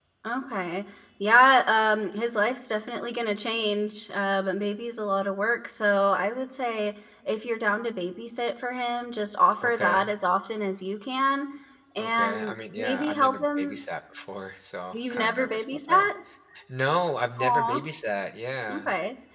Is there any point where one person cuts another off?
Yes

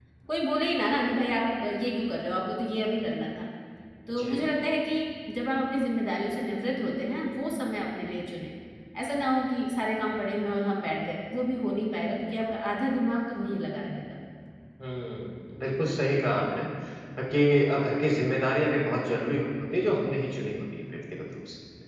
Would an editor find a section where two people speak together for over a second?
No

